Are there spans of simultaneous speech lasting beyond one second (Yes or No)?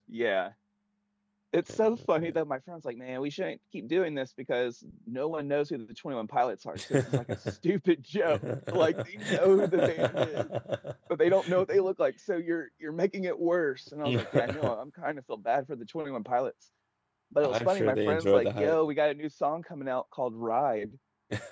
Yes